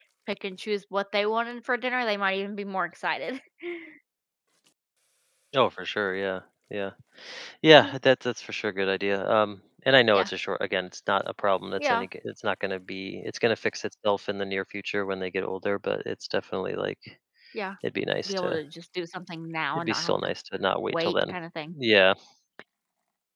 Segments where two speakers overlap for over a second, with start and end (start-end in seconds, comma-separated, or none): none